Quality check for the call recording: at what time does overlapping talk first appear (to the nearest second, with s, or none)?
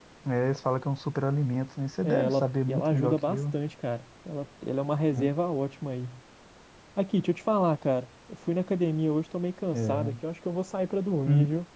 2 s